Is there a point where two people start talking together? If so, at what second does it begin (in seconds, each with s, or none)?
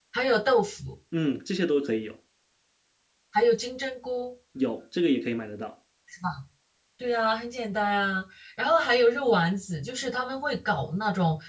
none